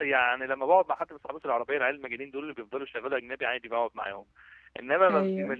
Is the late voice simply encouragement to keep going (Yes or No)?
Yes